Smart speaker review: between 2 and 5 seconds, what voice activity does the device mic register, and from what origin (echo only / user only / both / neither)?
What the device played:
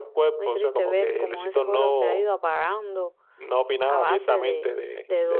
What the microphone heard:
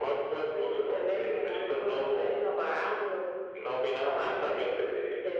echo only